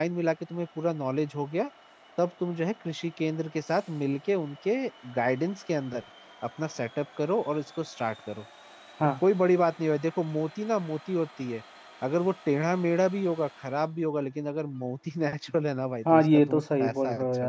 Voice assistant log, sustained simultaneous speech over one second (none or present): present